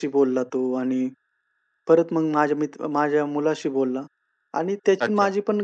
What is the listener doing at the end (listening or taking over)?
listening